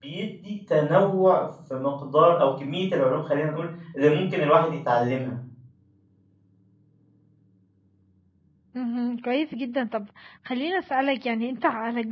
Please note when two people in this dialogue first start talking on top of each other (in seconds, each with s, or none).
none